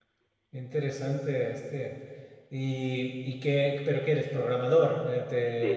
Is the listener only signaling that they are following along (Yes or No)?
No